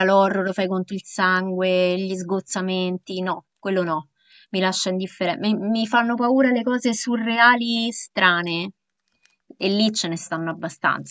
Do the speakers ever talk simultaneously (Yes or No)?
No